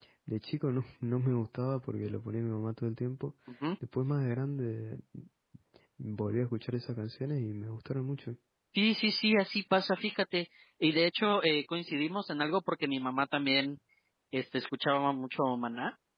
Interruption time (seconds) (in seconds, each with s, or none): none